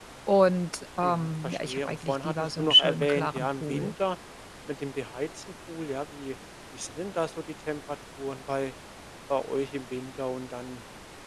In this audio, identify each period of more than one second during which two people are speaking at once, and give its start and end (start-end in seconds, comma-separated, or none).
1.0-3.9